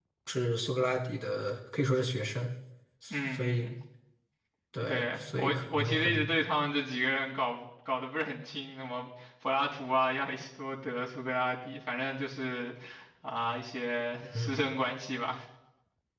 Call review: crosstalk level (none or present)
present